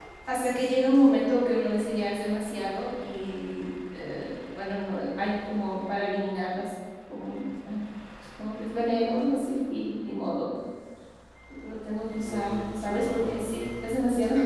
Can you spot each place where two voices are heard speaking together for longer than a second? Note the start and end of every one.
12.2-13.7

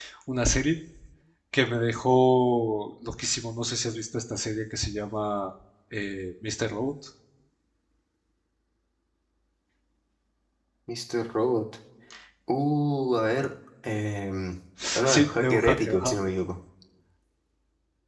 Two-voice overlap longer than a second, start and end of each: 15.0-16.2

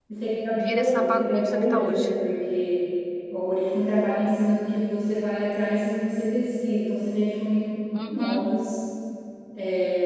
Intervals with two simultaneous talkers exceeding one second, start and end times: 0.6-2.0

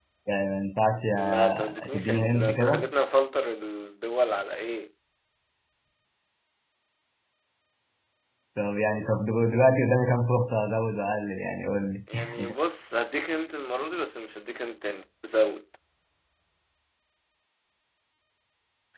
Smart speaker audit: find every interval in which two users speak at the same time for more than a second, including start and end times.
1.2-2.9

